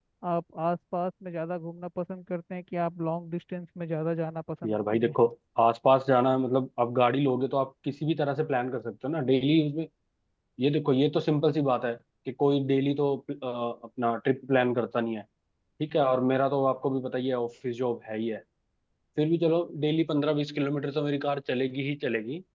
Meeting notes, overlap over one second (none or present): none